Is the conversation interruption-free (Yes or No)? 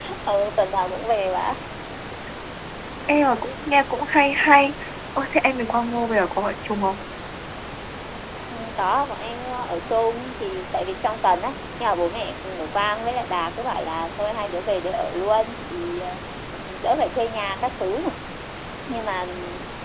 Yes